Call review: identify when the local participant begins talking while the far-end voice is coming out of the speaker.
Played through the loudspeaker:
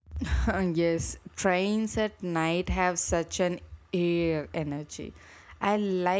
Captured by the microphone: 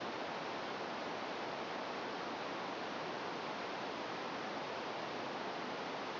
none

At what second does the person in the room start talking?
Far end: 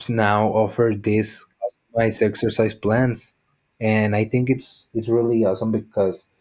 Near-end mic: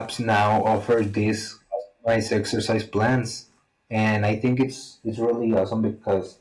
none

